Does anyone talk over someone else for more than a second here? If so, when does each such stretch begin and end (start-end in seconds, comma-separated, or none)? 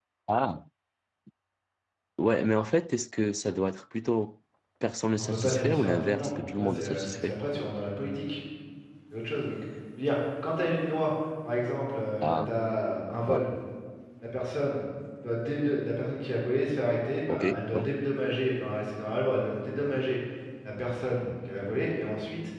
5.2-7.4